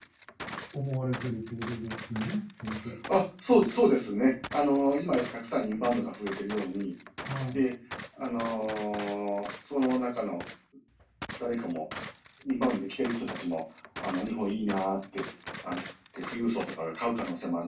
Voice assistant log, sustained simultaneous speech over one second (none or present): none